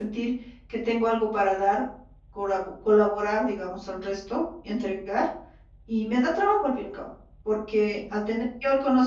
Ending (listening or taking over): listening